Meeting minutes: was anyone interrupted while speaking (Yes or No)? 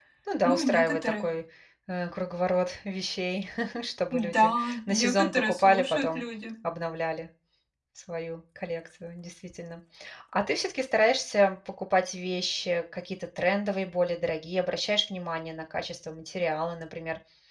Yes